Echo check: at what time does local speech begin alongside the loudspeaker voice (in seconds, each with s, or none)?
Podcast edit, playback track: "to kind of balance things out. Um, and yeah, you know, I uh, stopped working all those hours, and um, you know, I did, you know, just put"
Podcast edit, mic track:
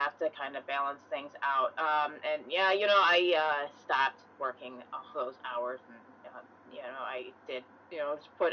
none